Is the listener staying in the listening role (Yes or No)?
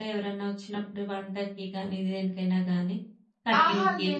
No